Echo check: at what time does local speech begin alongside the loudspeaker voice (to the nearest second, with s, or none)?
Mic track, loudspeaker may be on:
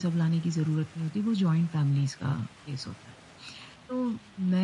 none